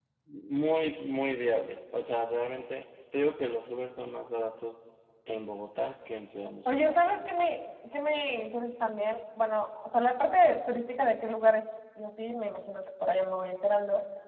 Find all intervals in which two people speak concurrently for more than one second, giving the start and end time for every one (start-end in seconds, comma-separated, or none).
none